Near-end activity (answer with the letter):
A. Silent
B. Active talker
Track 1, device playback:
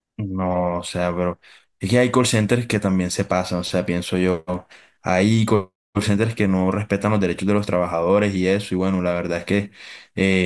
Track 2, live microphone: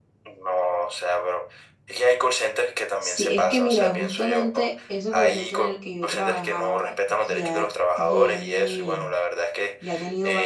B